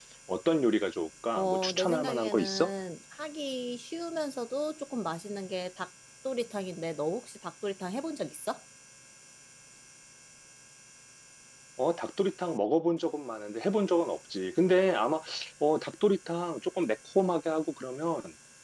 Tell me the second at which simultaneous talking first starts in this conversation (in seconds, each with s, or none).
1.4 s